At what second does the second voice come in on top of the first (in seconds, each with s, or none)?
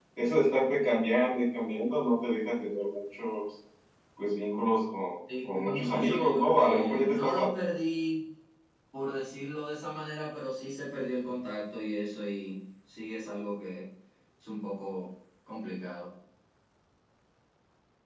5.5 s